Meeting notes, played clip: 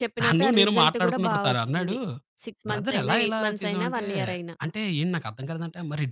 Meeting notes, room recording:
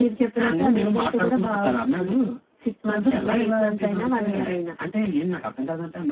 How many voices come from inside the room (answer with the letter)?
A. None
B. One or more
A